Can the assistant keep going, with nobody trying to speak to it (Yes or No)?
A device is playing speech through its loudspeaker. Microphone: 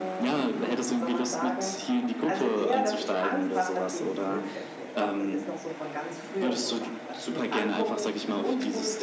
No